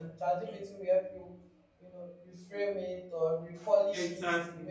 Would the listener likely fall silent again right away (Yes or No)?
Yes